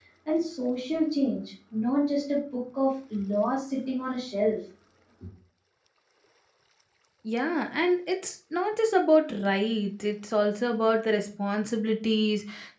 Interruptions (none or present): none